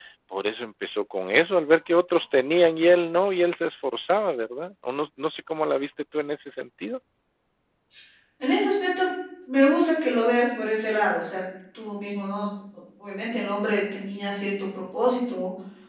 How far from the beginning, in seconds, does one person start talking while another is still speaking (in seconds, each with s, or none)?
none